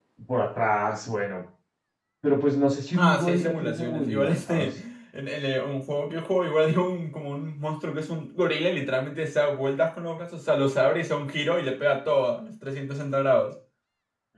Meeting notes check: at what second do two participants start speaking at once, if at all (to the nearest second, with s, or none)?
3 s